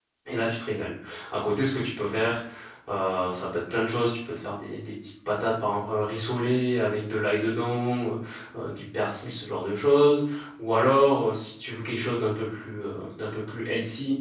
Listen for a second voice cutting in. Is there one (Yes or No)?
No